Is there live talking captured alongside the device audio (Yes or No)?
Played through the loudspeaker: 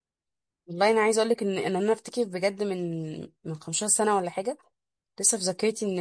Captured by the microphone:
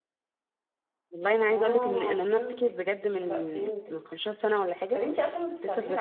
Yes